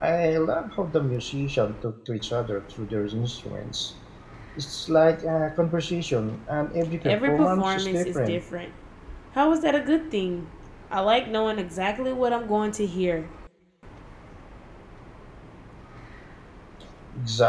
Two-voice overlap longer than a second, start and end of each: 7.0-8.4

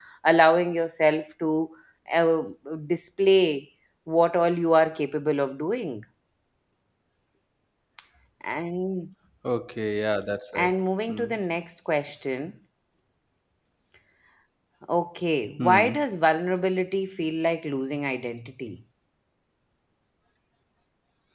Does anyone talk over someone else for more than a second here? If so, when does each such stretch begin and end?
none

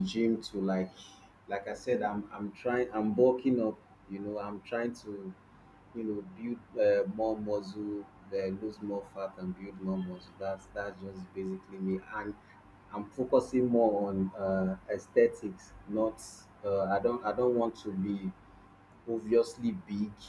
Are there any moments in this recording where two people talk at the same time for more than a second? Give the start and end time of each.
none

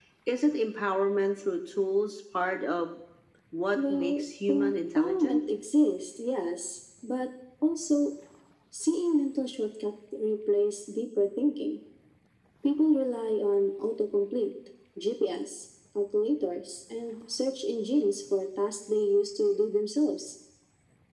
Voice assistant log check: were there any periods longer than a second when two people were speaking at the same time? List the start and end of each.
3.8-5.4

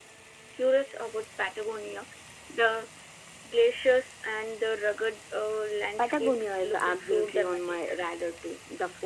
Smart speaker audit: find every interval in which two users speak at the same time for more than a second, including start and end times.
6.0-8.0

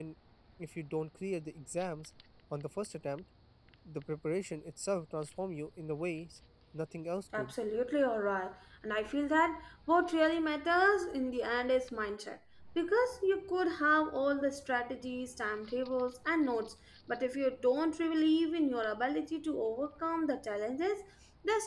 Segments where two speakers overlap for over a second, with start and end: none

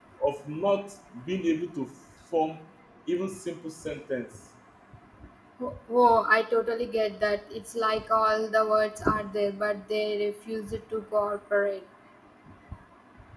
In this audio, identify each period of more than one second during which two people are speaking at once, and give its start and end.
none

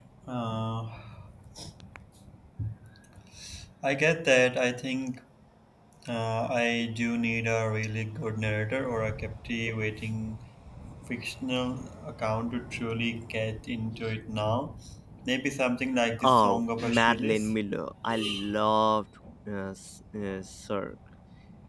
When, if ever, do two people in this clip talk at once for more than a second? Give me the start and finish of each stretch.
16.2-17.5

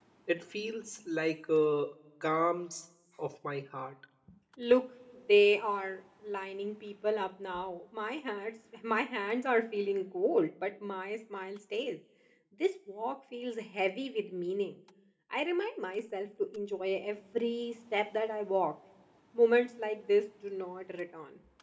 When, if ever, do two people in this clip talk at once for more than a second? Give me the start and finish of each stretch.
none

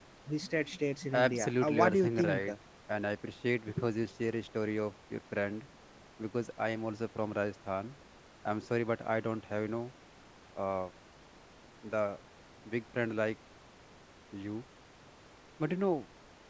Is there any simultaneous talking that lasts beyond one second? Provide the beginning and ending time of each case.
1.1-2.5

